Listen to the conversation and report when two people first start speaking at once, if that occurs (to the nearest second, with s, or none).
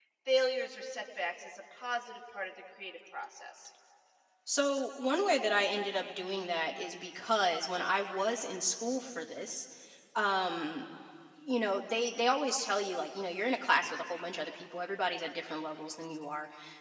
none